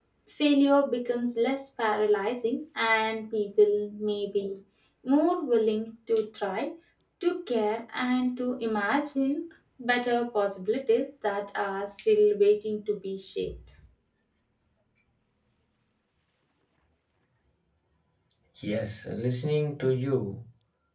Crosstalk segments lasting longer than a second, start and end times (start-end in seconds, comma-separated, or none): none